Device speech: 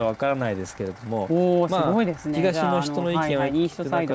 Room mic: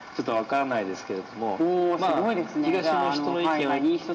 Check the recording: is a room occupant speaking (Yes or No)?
No